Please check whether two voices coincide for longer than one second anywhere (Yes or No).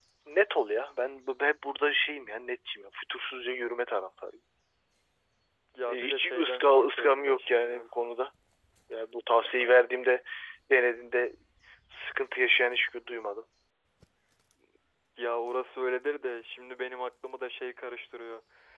Yes